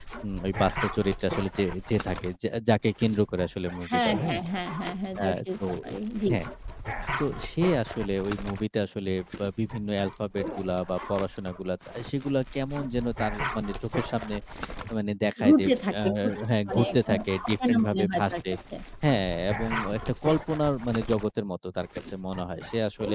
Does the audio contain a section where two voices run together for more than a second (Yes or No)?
Yes